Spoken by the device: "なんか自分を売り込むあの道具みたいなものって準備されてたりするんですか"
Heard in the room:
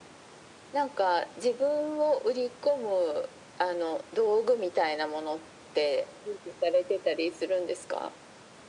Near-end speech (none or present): none